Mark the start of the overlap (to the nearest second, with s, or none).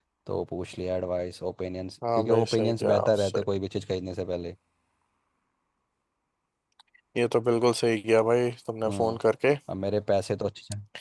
2 s